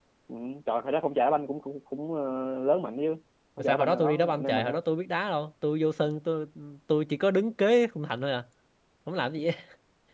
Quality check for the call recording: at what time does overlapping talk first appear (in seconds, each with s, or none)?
3.6 s